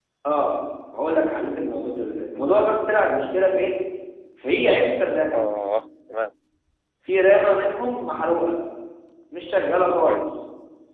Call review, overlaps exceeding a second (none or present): none